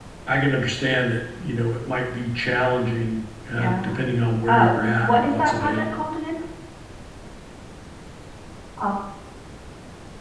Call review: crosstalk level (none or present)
present